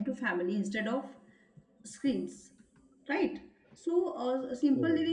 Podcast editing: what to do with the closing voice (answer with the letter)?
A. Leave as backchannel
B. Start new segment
A